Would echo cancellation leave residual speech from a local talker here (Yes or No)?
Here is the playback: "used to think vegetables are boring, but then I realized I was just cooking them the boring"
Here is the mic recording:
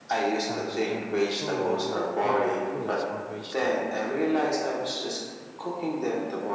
Yes